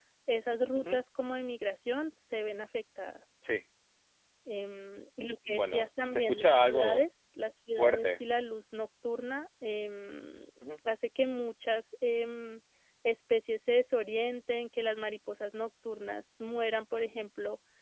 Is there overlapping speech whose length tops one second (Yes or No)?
Yes